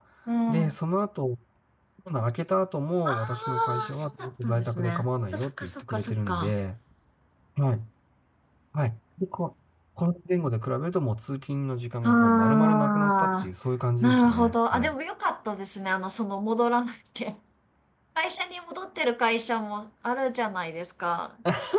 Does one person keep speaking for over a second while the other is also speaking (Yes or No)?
Yes